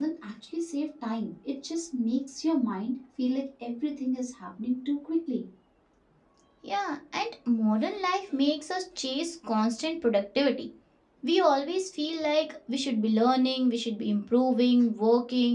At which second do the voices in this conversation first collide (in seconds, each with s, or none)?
none